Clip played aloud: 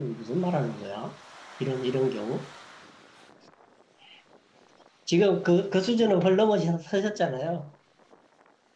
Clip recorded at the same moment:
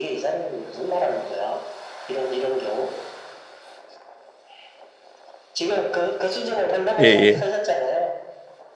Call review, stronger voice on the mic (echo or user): user